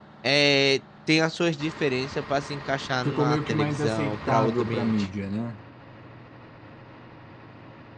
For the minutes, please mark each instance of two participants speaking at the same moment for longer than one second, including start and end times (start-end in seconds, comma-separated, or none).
3.0-5.1